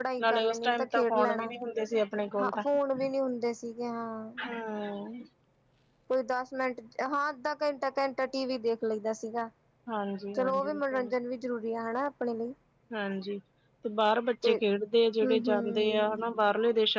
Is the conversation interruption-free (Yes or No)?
No